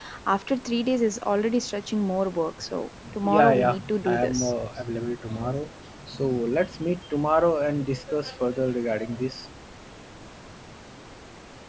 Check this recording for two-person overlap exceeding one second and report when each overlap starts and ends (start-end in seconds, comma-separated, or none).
3.2-4.5